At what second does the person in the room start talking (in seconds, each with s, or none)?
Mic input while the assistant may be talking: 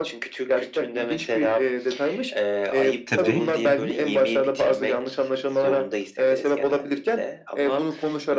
3.0 s